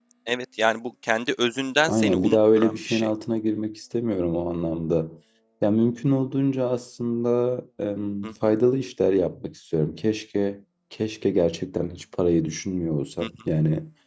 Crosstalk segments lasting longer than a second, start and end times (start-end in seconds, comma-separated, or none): 1.9-3.1